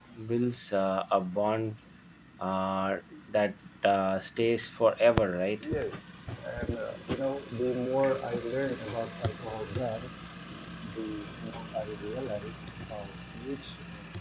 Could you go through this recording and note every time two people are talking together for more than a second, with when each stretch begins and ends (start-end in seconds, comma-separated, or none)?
none